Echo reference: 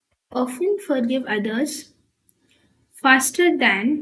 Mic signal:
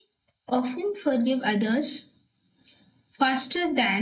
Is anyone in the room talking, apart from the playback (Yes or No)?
No